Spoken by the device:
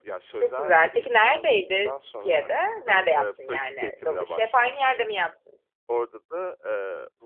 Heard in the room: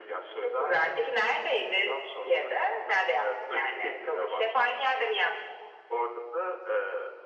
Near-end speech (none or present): none